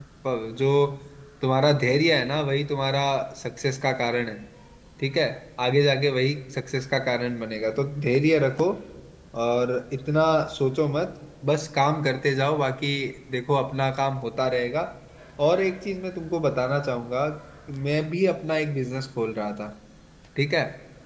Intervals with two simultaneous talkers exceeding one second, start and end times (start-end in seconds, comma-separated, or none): none